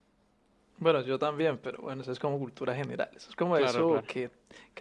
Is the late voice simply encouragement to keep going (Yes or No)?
Yes